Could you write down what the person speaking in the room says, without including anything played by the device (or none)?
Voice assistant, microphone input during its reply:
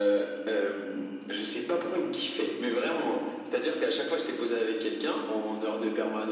none